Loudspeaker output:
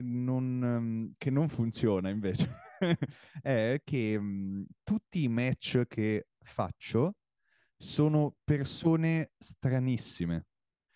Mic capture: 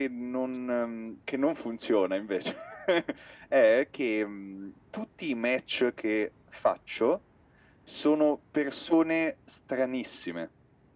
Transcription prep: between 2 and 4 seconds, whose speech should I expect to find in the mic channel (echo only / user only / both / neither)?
echo only